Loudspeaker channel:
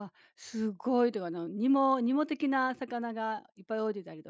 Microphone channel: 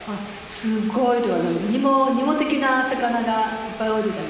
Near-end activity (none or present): none